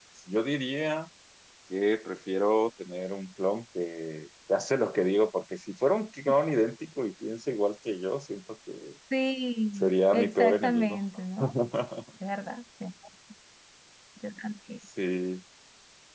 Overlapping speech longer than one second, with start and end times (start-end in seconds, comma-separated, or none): 9.8-11.0